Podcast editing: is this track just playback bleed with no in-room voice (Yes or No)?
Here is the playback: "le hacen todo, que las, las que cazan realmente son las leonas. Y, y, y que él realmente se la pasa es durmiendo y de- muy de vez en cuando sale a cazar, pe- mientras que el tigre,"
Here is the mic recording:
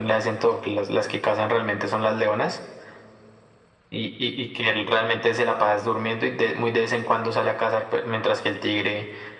Yes